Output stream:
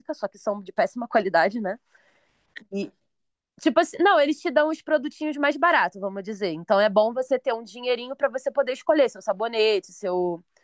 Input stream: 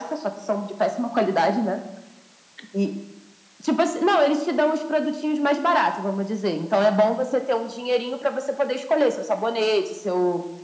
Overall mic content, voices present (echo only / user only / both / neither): echo only